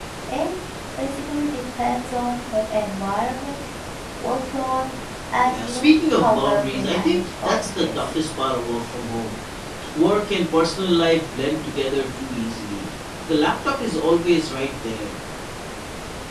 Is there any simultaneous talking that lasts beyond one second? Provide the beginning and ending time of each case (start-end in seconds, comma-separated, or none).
5.5-8.1